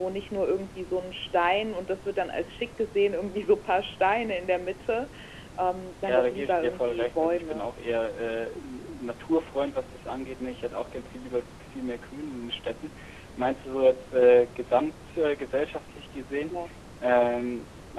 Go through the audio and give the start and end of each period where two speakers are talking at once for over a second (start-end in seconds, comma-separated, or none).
6.0-7.7